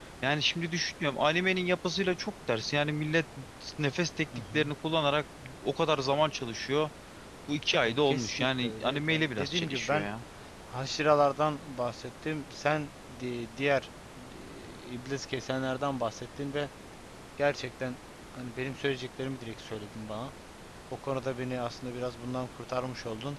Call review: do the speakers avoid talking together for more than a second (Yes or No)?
No